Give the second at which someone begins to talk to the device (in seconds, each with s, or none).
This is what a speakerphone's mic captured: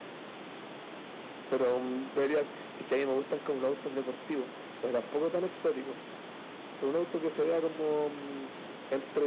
none